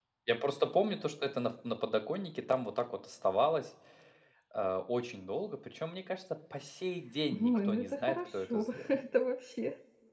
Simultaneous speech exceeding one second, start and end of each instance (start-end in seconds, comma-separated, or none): 7.3-9.0